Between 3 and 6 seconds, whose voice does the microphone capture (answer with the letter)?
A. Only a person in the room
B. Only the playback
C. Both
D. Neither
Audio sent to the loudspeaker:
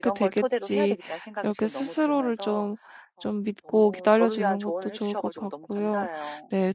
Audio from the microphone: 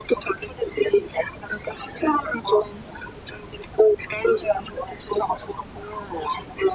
B